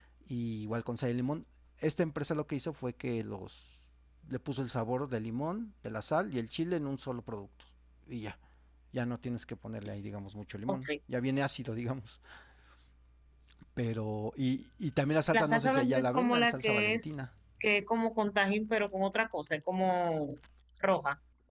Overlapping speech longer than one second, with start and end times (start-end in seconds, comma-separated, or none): 15.3-17.3